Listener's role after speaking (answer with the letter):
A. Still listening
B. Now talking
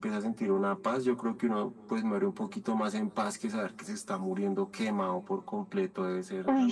B